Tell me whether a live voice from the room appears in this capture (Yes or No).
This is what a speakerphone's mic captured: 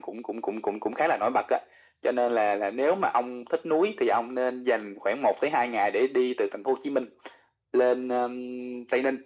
No